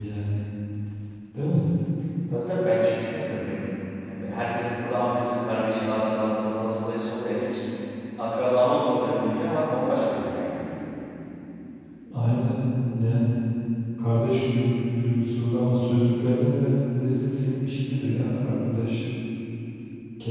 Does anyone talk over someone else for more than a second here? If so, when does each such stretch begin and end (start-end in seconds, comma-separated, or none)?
none